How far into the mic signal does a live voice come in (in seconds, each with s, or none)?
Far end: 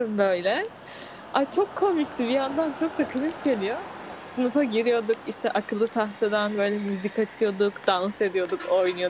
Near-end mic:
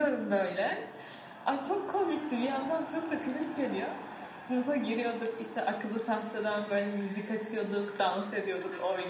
none